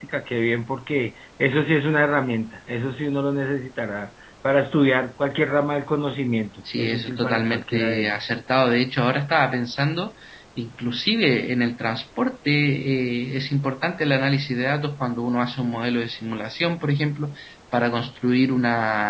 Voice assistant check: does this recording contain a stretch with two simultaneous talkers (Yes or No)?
Yes